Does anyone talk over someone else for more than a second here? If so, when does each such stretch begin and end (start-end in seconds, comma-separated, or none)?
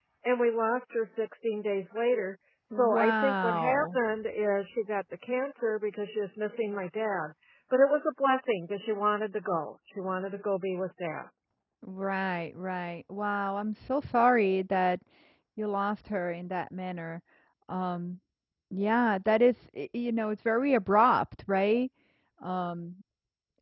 2.7-4.0